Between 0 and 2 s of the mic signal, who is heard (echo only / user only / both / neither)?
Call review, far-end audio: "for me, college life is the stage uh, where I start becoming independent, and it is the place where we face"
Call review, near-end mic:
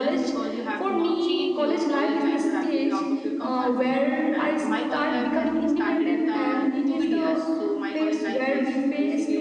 both